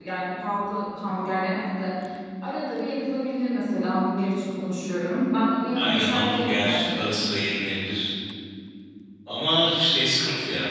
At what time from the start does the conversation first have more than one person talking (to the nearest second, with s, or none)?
6 s